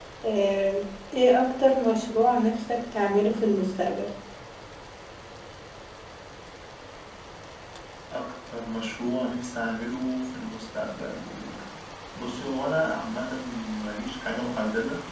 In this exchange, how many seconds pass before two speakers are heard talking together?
none

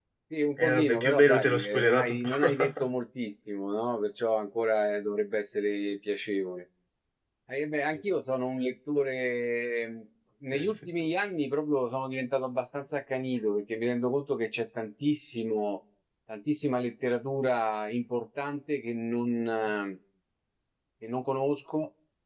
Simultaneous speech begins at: 0.6 s

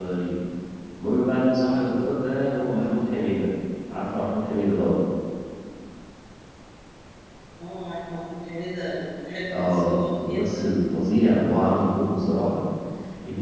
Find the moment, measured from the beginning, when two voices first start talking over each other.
9.5 s

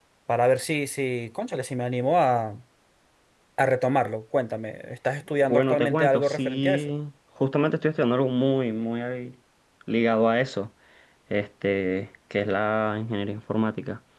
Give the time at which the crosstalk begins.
5.4 s

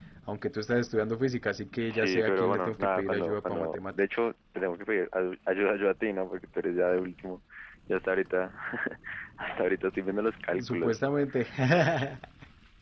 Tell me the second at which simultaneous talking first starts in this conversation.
1.9 s

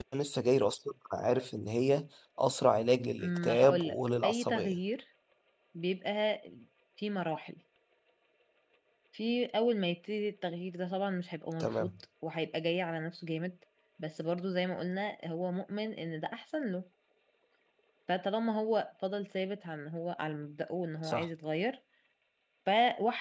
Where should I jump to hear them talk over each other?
3.2 s

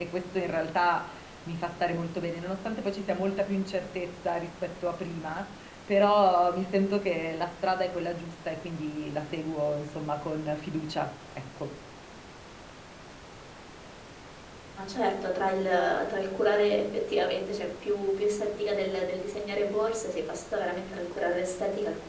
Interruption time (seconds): none

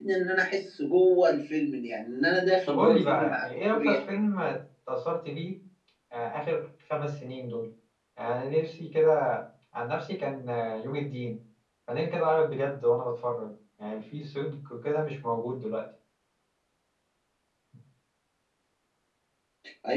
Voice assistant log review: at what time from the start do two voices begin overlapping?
2.7 s

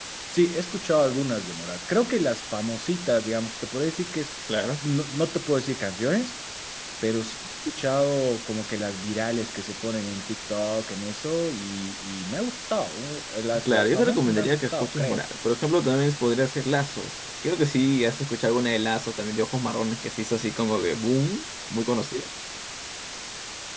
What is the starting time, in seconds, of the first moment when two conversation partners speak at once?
13.5 s

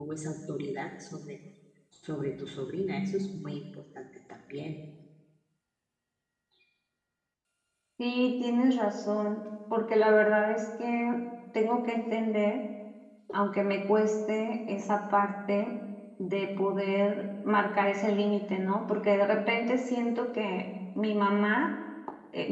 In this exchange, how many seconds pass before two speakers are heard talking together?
none

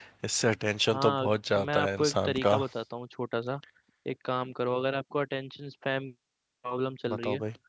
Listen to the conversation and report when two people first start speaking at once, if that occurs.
0.9 s

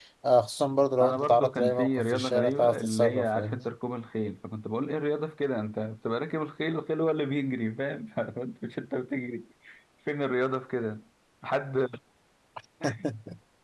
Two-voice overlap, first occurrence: 1.0 s

